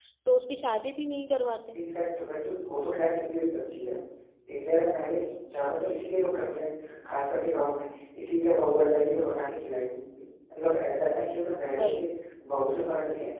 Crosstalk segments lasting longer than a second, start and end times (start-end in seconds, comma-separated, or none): none